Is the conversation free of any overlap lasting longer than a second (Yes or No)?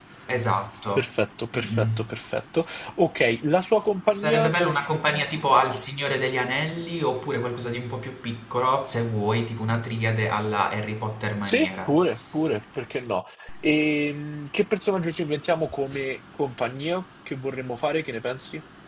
Yes